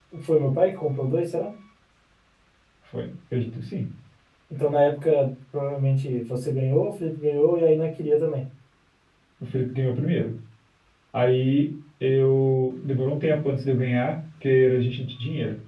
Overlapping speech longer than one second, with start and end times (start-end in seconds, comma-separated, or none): none